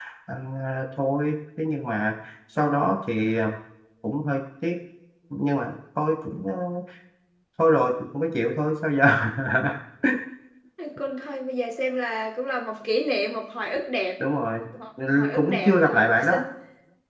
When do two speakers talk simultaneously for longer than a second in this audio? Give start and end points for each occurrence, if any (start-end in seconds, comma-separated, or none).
15.1-16.4